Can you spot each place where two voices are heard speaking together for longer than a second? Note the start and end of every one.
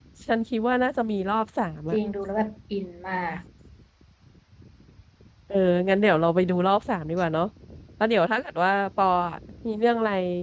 none

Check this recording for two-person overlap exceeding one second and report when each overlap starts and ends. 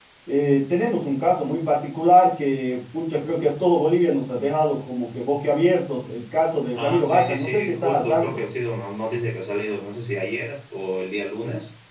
6.7-8.4

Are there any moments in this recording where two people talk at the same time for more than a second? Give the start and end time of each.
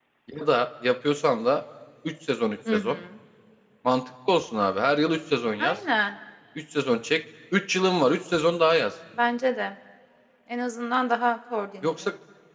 none

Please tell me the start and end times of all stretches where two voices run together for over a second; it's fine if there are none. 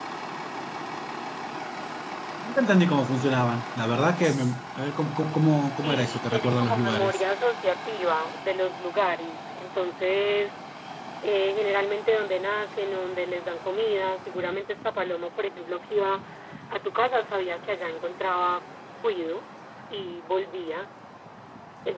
5.8-7.2

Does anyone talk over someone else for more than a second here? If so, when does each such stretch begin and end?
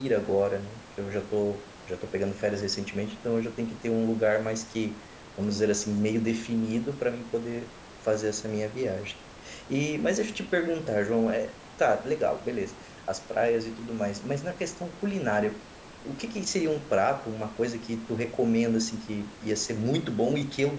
none

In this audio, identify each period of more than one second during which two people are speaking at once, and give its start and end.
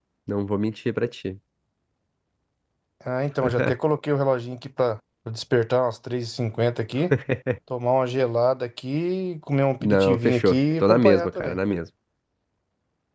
9.8-11.6

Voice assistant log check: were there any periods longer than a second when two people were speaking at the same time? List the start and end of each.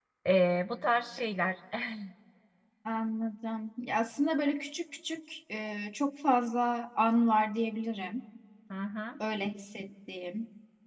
none

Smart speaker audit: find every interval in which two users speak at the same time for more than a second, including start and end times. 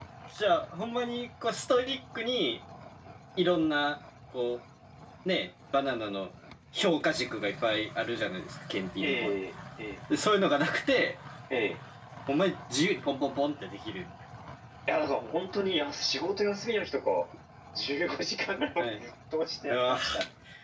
none

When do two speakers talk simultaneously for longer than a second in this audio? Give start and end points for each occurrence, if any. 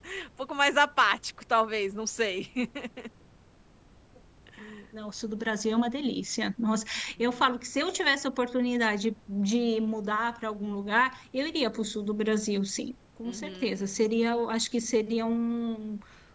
none

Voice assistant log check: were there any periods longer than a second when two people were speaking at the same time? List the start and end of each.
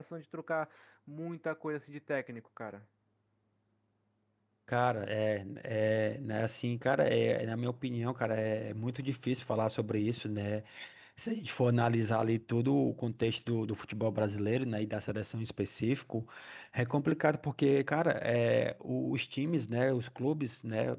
none

